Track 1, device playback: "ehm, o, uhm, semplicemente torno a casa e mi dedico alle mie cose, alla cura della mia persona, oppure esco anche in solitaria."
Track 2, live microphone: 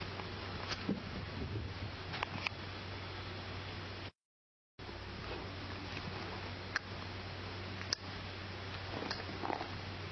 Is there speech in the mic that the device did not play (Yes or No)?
No